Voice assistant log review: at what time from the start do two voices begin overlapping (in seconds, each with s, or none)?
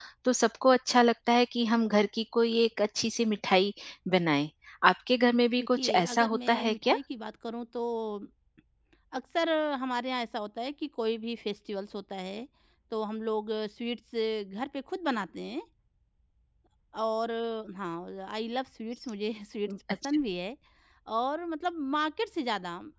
5.6 s